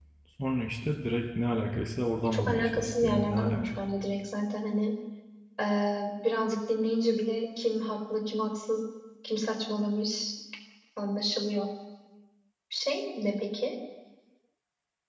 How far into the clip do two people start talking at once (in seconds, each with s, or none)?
2.2 s